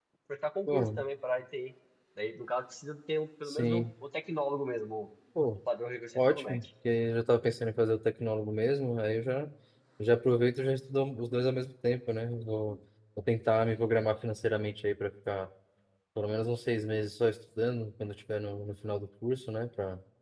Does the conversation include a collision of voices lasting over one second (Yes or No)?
No